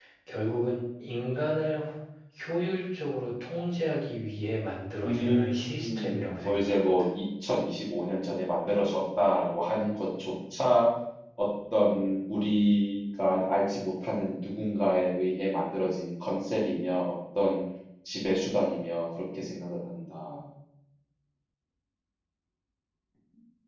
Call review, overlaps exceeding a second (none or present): present